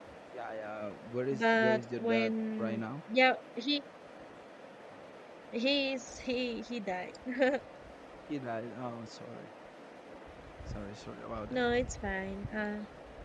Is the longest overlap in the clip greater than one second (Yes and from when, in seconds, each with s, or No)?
Yes, from 1.3 s